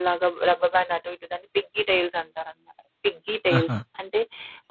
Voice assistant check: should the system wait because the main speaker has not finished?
Yes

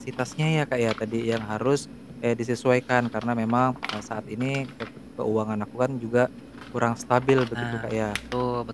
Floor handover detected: Yes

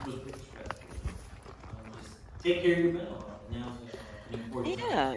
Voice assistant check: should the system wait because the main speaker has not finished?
No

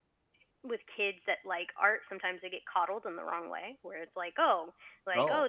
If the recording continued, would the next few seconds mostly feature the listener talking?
No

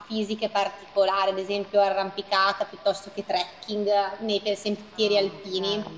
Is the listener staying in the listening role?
No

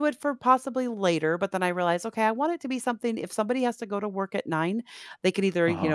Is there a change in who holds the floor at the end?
No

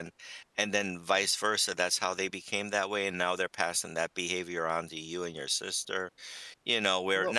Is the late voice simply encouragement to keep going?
Yes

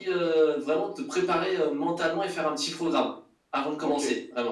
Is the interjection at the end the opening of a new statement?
Yes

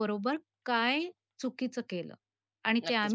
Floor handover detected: Yes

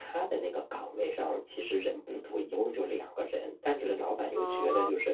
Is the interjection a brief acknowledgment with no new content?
Yes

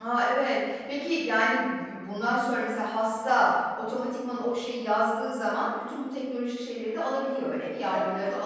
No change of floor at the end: No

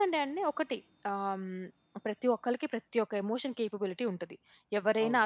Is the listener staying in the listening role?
Yes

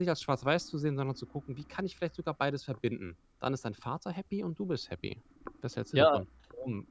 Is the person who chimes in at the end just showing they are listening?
No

